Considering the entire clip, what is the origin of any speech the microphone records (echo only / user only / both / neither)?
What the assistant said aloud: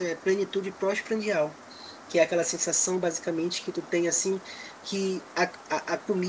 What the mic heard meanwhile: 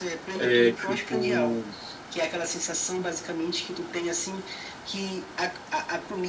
both